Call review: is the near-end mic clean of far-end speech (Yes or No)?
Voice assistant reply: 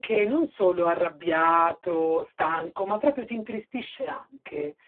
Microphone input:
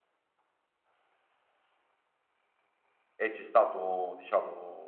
Yes